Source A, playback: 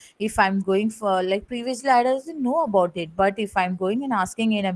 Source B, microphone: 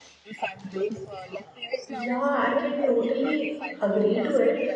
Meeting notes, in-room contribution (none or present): present